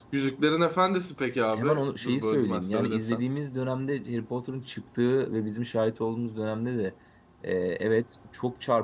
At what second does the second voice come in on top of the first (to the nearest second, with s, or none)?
2 s